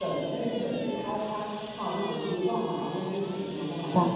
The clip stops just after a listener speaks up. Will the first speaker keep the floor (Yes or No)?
Yes